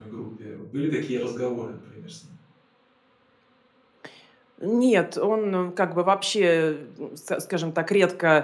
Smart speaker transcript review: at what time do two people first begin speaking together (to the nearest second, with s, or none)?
none